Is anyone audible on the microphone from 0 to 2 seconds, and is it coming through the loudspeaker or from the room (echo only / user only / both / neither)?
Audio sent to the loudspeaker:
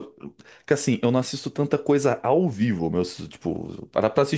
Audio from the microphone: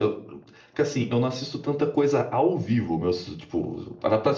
echo only